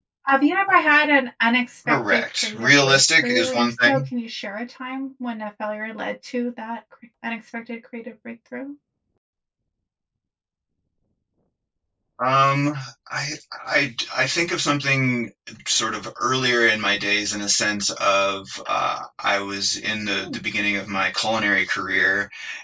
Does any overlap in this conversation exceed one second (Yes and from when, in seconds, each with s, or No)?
Yes, from 1.9 s